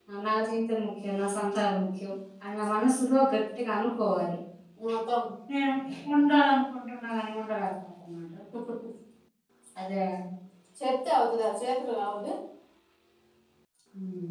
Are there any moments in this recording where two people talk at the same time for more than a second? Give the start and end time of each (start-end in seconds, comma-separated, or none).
none